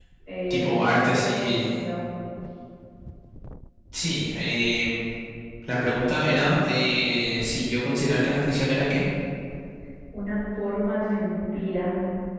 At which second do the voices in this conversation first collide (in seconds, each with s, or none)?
0.5 s